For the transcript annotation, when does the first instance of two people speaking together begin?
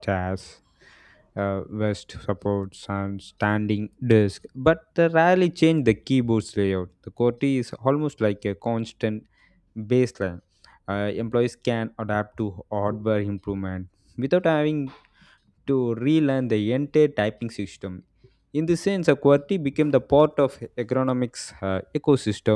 none

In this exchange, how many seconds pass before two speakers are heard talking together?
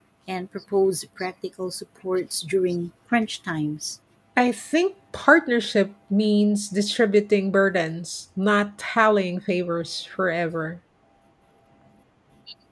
none

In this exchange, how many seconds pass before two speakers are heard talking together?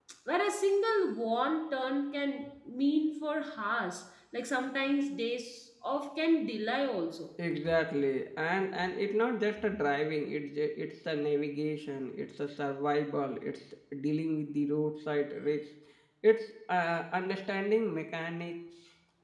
none

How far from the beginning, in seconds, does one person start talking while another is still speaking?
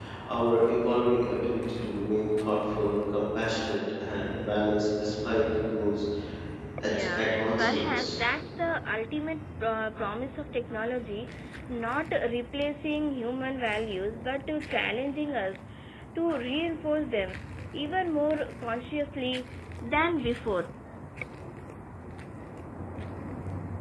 6.9 s

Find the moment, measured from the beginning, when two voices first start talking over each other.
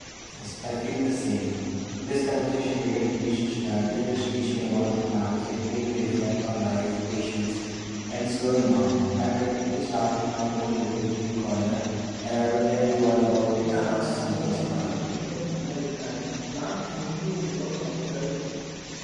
13.6 s

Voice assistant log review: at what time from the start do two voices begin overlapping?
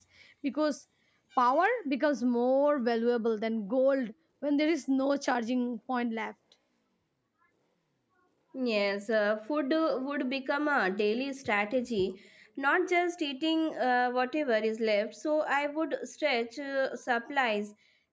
none

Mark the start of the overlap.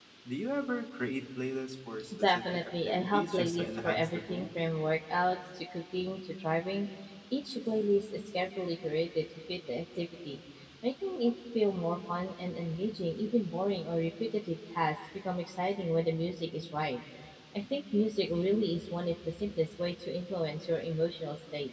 2.1 s

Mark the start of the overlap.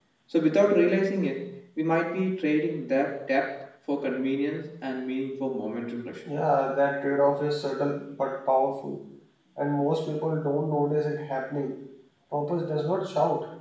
none

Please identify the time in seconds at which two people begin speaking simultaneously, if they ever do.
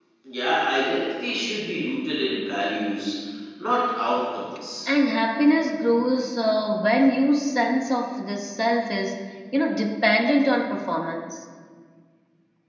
none

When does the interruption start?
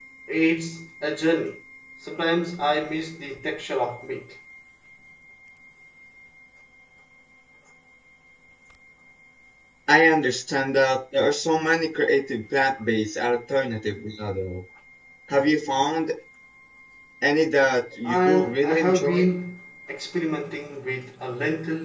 18.0 s

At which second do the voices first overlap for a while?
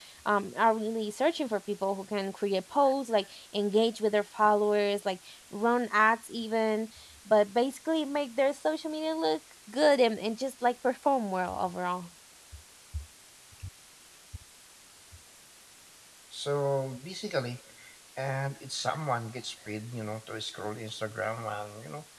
none

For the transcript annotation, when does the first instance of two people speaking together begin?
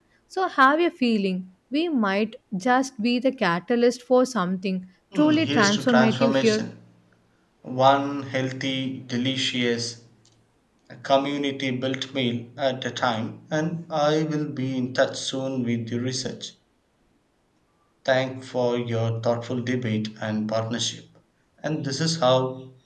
5.1 s

